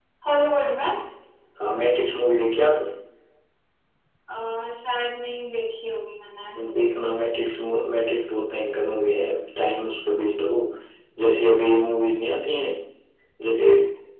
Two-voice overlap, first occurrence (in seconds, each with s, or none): none